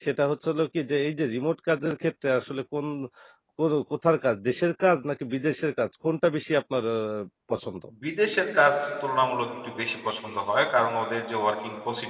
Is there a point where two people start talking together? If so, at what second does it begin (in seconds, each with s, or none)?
none